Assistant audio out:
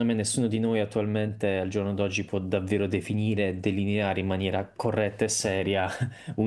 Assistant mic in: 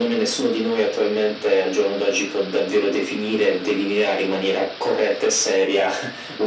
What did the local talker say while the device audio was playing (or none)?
none